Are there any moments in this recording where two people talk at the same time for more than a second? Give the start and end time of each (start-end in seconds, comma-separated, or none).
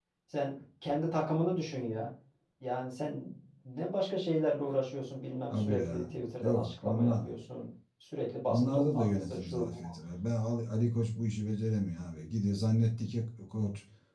5.5-7.2, 8.5-9.8